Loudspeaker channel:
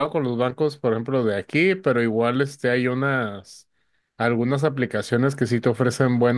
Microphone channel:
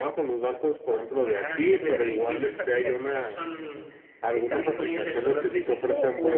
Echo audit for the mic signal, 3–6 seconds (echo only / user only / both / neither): both